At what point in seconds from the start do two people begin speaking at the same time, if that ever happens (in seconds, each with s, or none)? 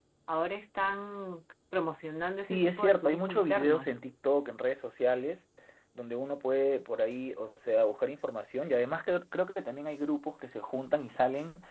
2.5 s